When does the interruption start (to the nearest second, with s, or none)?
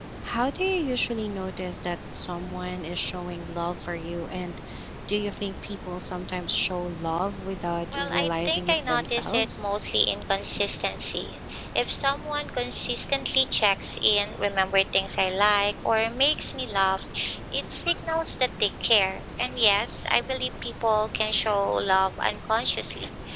8 s